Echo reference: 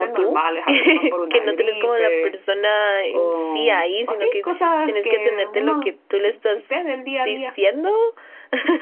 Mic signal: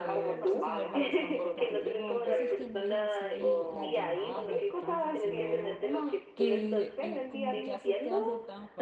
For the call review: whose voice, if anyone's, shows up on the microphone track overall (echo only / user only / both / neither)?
both